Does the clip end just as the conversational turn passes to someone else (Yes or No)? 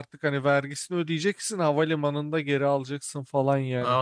Yes